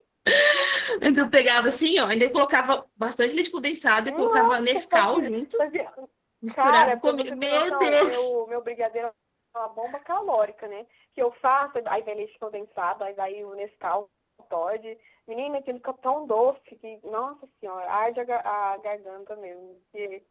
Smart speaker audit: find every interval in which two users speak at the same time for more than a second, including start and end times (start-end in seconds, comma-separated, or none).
4.0-5.4, 6.5-8.3